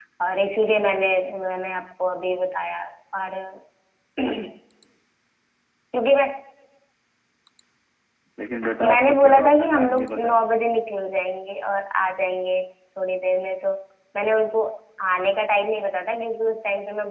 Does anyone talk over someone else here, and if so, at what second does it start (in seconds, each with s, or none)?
8.9 s